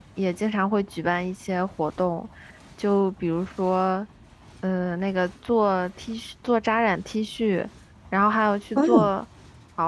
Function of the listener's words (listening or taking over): listening